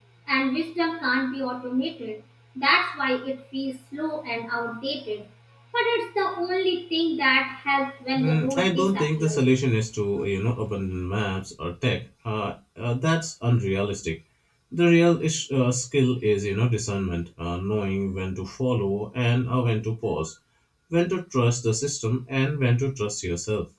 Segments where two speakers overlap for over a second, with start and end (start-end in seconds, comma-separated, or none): 8.2-9.4